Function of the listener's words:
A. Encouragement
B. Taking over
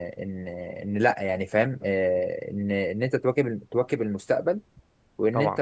A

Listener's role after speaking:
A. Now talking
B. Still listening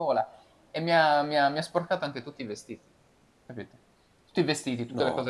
B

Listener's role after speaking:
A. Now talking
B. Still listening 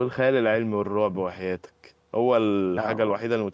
B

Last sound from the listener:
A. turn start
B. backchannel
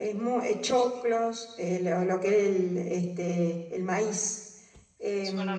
B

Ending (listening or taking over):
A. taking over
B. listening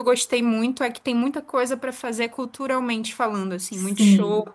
A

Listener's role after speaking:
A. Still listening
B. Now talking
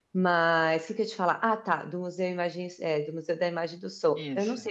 A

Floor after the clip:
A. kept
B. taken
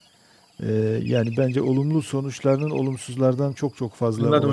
B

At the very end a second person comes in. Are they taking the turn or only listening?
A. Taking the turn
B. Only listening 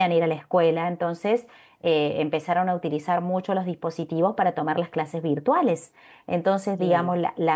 B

